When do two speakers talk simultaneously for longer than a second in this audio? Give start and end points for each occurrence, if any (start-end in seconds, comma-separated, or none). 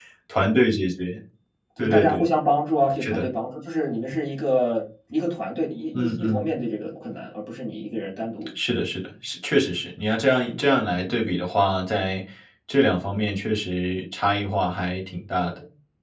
none